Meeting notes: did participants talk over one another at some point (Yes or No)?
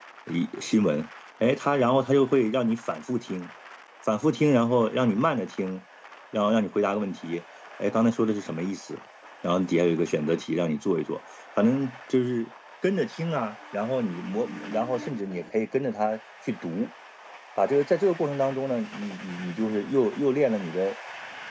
No